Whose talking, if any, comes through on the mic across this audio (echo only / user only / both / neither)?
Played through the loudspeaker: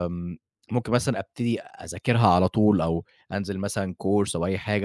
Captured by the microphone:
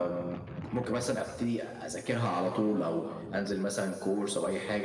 echo only